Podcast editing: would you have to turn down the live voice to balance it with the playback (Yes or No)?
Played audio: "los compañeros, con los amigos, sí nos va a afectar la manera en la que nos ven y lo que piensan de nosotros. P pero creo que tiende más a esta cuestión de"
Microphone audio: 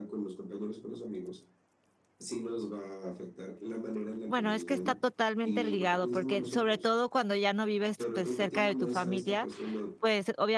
Yes